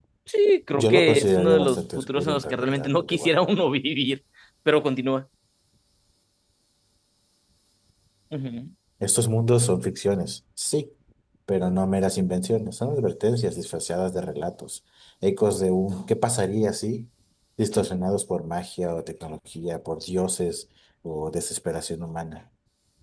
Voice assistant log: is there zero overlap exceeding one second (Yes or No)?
No